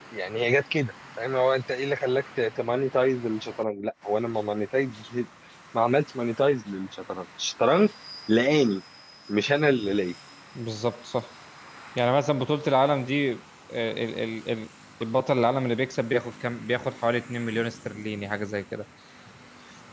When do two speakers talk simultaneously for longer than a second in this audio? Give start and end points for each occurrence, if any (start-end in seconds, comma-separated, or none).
none